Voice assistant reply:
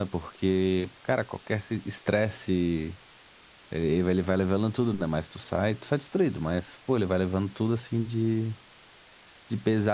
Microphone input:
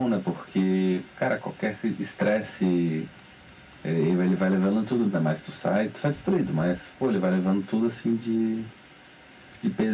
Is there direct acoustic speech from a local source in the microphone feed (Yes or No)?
No